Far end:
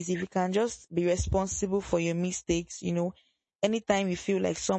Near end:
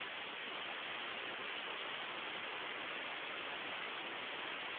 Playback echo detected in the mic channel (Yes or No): No